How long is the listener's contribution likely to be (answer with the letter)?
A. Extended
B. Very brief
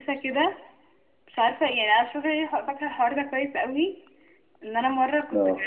B